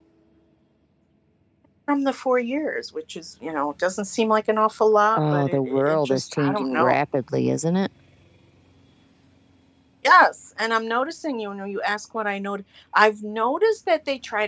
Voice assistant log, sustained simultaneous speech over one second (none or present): present